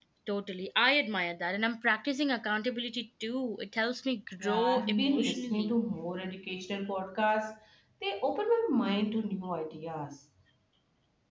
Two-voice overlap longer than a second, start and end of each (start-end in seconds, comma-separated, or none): 4.4-5.7